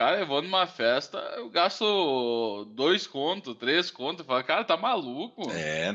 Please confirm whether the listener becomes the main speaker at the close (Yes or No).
Yes